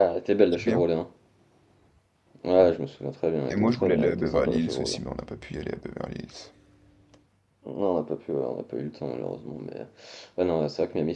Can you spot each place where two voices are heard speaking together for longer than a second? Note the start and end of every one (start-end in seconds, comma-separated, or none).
3.5-5.0